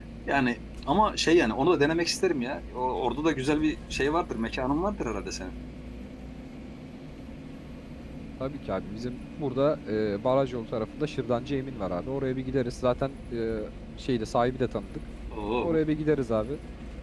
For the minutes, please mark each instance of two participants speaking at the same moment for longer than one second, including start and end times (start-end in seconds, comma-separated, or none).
none